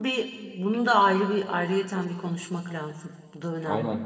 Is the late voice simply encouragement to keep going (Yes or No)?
No